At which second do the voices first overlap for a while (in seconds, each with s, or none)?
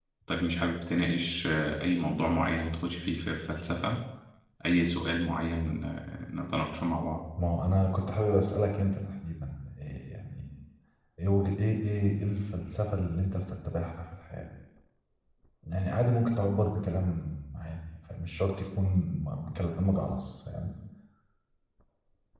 none